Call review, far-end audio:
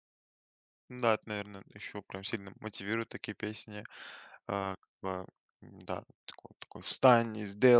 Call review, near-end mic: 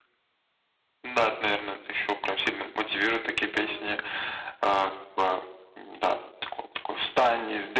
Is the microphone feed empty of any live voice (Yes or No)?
No